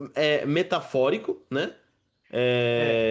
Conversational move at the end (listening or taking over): listening